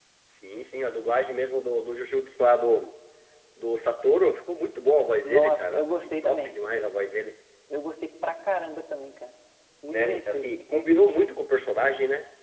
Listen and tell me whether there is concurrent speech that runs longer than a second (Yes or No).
Yes